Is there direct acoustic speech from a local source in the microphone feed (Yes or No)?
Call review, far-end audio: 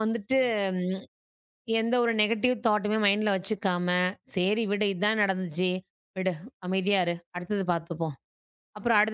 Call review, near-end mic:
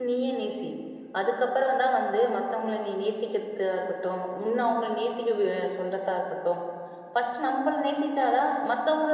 Yes